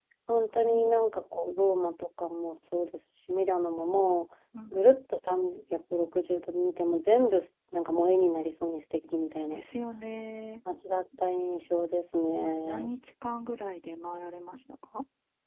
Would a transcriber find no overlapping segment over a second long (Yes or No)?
Yes